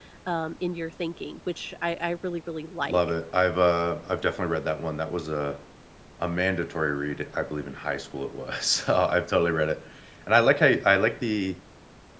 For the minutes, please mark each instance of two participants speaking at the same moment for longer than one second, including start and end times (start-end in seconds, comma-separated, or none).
none